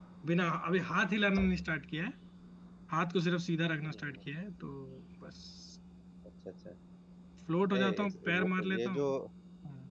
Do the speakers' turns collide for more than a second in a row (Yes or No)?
Yes